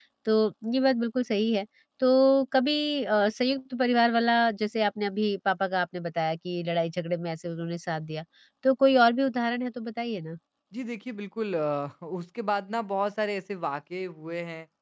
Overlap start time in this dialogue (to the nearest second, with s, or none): none